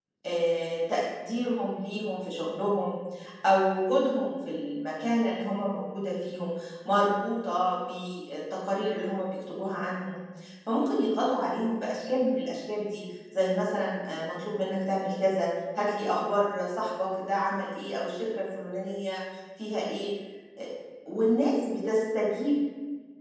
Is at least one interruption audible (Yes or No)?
No